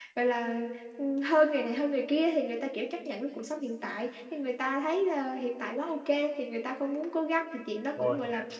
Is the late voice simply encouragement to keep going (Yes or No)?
Yes